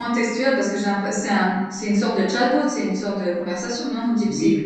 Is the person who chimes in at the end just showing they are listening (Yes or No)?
No